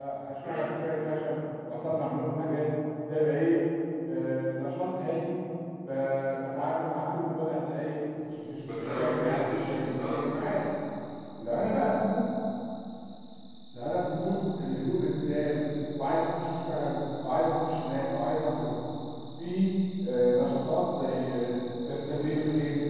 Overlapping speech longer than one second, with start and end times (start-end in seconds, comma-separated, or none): 8.7-10.2